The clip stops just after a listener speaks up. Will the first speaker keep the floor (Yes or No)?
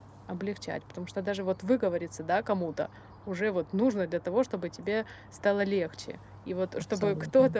Yes